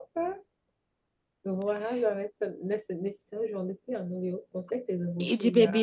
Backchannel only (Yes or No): No